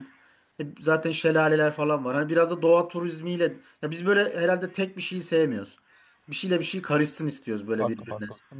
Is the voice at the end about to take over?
Yes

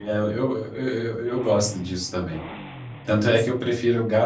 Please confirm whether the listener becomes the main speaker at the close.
No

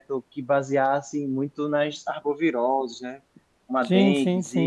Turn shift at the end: Yes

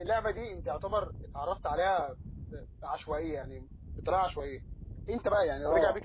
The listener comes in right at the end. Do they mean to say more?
No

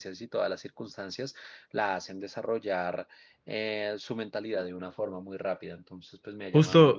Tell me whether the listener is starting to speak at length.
Yes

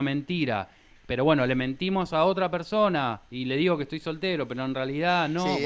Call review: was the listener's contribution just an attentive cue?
No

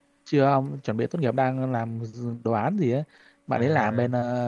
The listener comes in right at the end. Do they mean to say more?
No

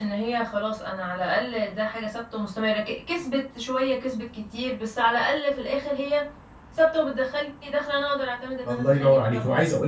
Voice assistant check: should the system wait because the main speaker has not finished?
No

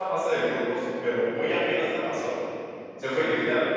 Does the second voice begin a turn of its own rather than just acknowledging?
No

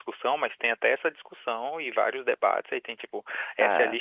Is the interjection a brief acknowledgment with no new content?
Yes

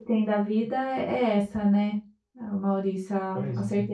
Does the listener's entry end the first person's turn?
No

